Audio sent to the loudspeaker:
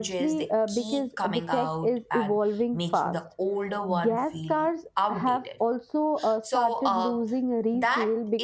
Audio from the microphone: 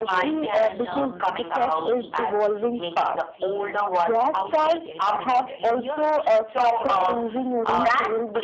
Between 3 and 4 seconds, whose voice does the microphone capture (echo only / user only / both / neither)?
both